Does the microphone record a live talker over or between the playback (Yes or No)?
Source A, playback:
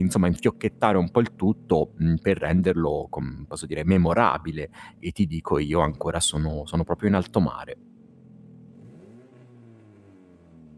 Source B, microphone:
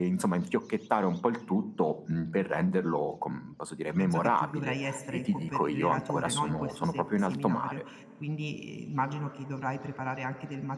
Yes